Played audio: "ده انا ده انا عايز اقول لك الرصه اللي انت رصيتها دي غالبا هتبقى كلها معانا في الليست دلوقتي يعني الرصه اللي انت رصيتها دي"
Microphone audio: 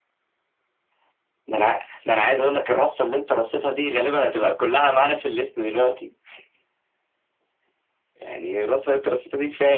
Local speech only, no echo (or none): none